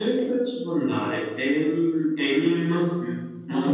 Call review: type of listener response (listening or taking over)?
taking over